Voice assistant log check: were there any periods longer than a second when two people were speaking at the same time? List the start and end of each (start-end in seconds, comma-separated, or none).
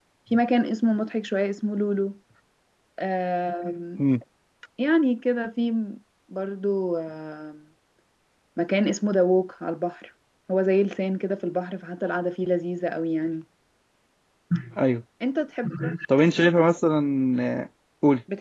none